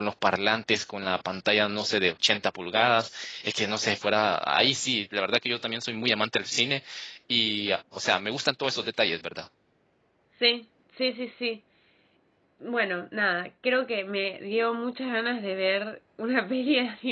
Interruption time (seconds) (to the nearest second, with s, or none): none